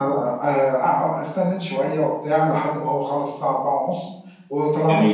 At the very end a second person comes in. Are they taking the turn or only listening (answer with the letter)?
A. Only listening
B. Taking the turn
A